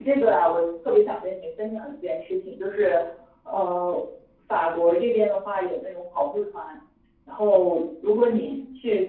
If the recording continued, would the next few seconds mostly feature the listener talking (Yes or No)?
No